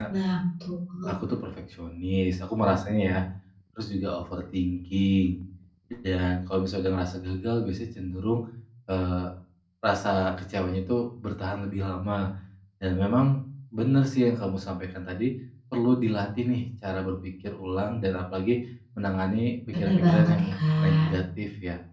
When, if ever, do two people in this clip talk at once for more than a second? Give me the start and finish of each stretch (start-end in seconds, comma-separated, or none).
19.7-21.1